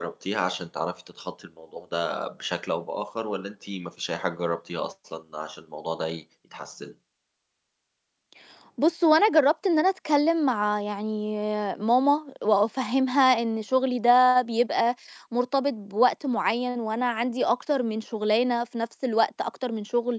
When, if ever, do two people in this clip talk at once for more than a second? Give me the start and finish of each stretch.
none

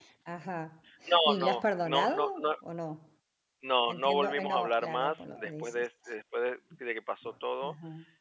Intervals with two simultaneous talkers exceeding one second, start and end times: 1.2-2.5, 3.9-5.9

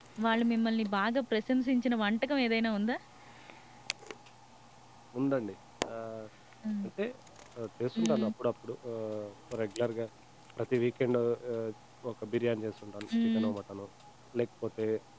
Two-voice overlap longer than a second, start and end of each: none

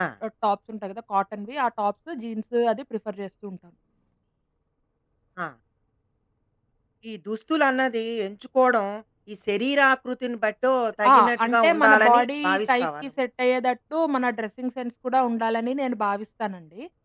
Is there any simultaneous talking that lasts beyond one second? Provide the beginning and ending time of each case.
11.1-13.0

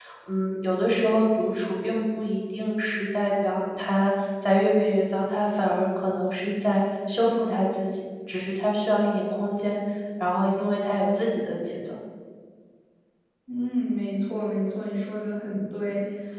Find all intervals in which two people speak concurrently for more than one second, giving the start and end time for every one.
none

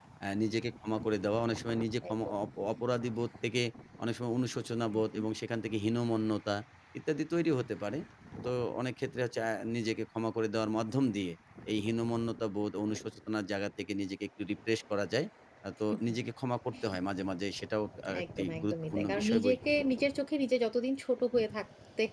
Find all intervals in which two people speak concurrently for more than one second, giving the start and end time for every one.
18.4-19.6

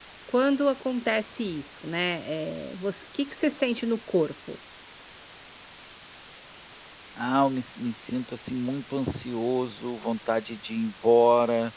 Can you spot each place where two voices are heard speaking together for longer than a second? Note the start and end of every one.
none

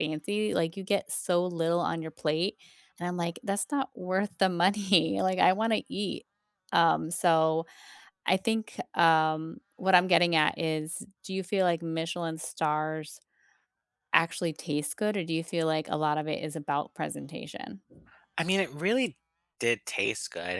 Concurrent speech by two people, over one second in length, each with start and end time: none

